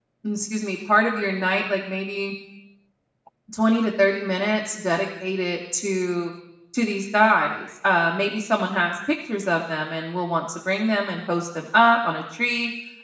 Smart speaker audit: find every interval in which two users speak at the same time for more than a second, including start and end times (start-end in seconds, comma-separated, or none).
none